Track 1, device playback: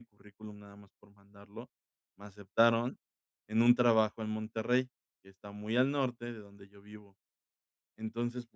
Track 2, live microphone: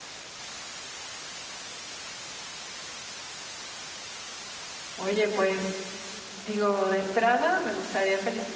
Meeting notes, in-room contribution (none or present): present